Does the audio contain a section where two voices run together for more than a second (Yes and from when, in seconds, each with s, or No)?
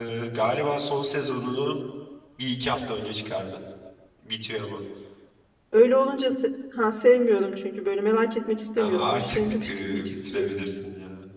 Yes, from 8.8 s